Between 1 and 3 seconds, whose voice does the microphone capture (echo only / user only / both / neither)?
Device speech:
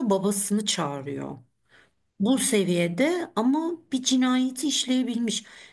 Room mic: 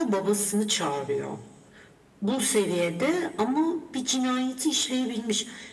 echo only